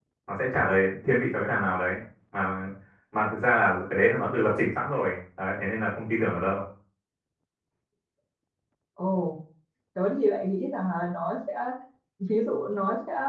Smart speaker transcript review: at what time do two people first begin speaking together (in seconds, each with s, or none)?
none